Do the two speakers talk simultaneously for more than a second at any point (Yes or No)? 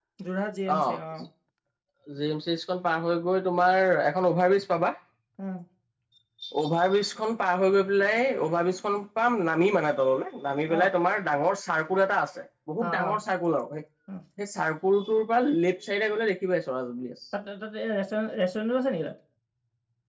No